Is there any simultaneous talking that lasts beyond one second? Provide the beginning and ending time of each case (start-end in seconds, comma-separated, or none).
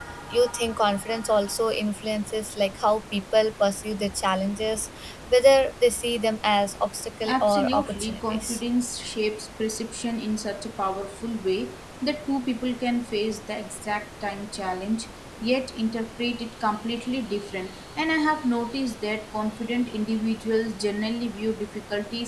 7.3-8.6